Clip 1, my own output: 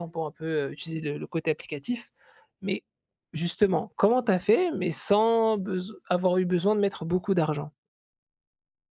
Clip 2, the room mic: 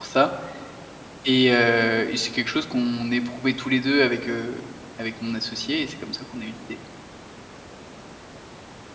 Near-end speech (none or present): present